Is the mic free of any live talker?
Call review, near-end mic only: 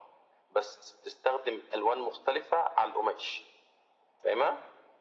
Yes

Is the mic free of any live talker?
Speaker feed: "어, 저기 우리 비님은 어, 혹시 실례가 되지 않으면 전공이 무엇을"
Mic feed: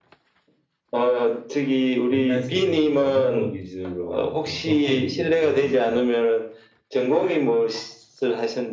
No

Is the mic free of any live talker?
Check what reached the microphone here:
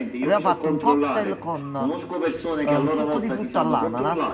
No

